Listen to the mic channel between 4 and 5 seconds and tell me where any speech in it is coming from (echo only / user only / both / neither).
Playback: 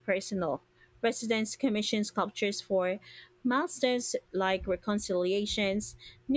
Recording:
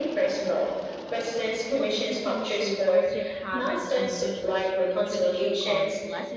both